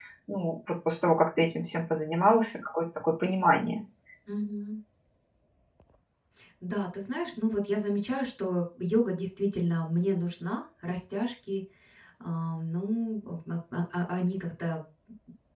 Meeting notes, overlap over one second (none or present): none